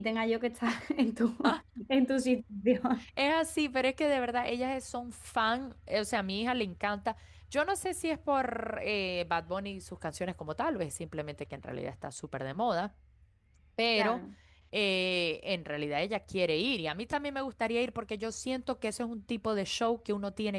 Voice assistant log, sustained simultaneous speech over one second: none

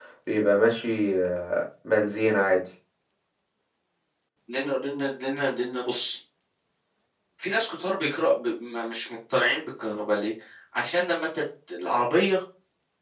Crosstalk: none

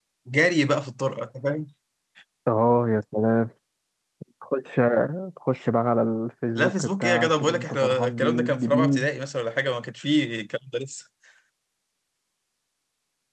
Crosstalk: present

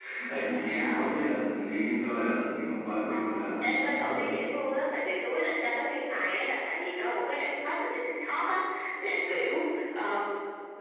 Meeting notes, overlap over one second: none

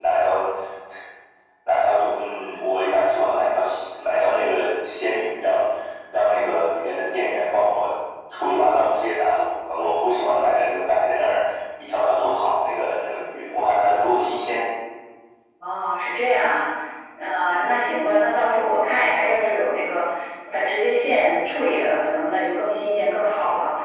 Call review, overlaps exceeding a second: none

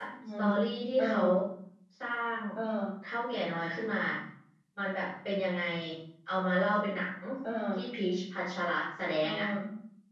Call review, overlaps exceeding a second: none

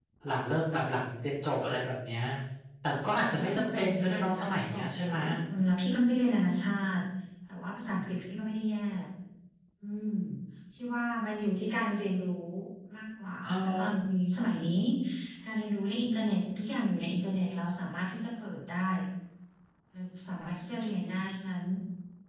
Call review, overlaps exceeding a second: present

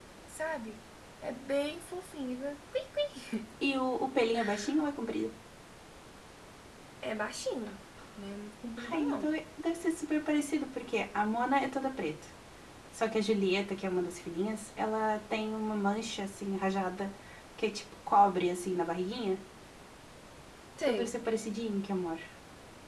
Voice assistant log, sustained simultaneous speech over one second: none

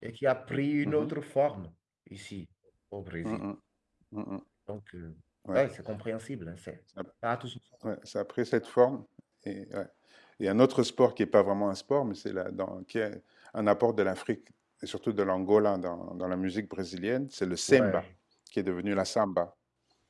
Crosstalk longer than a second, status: none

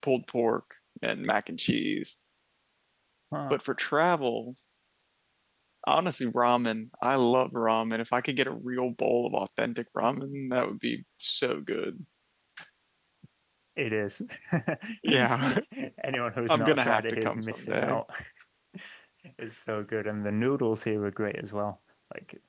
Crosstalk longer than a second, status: present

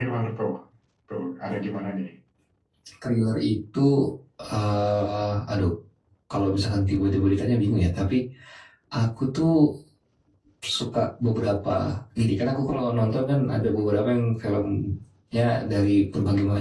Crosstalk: none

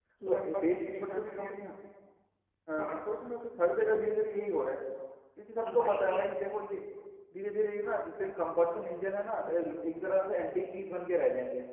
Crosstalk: present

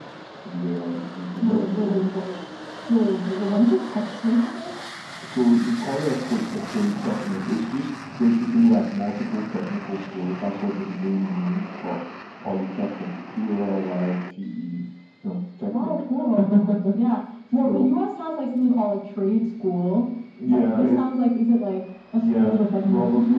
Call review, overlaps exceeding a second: present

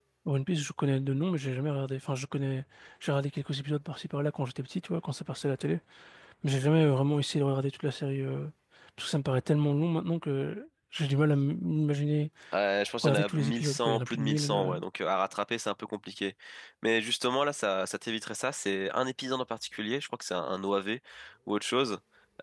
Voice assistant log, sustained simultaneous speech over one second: present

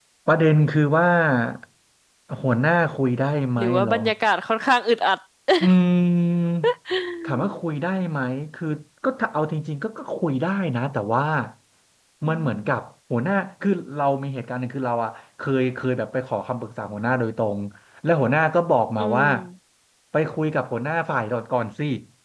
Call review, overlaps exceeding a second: none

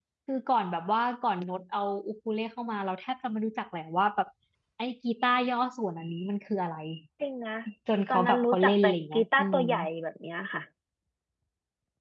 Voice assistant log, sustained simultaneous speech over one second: present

